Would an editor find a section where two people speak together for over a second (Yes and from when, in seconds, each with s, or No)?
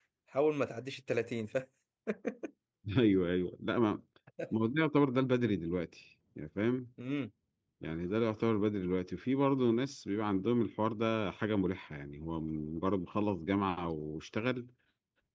No